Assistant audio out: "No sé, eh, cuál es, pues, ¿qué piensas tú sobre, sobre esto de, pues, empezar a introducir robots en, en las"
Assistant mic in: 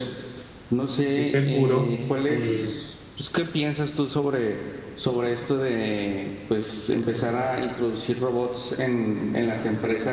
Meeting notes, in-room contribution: present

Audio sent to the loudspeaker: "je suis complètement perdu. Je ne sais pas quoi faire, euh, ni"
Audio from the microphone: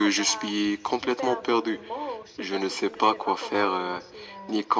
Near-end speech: present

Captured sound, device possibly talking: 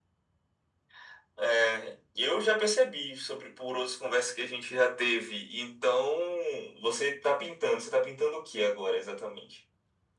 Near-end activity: none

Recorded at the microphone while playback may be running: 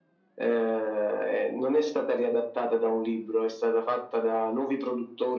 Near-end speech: none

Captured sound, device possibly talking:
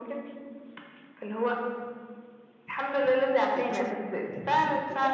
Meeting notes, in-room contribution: present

